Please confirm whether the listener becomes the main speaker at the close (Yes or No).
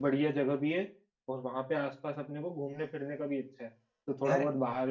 No